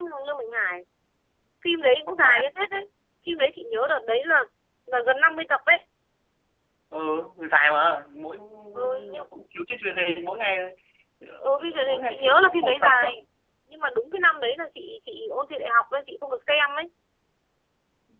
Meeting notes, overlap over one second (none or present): present